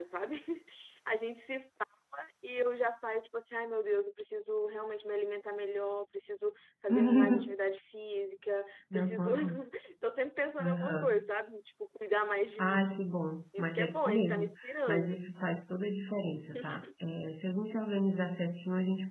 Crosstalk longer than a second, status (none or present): present